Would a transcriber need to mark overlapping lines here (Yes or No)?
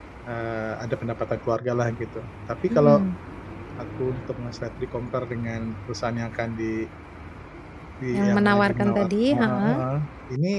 Yes